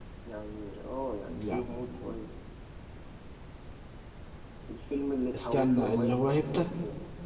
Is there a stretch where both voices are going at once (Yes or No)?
Yes